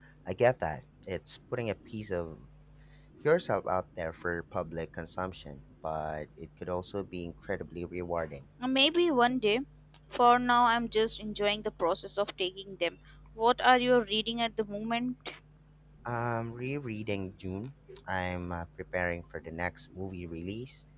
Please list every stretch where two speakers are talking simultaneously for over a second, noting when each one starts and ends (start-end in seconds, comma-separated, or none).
none